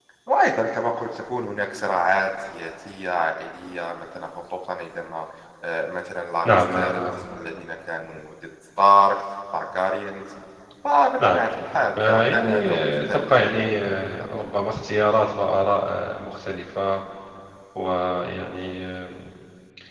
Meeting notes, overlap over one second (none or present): present